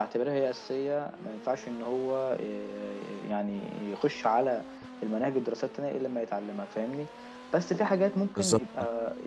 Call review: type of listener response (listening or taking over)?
listening